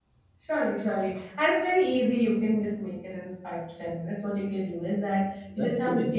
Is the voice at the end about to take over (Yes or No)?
No